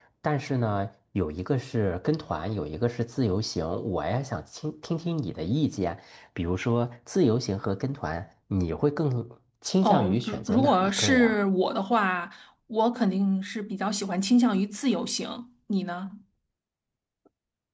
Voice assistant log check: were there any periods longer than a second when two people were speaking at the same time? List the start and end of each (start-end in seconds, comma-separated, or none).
9.8-11.4